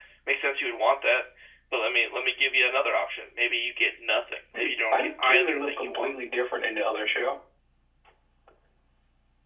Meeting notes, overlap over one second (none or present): present